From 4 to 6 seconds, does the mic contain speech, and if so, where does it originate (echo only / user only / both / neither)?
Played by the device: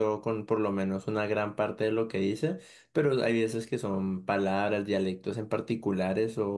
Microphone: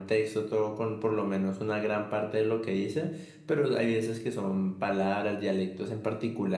echo only